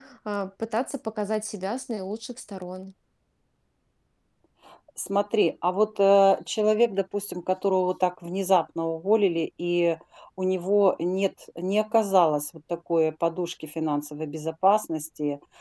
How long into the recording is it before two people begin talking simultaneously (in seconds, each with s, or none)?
none